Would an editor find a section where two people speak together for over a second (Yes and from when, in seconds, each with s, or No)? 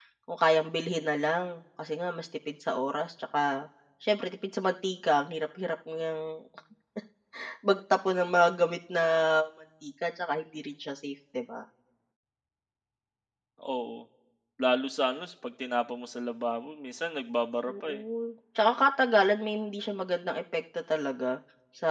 No